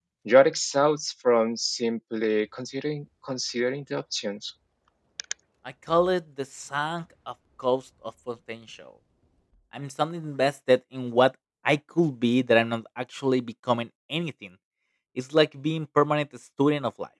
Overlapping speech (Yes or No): No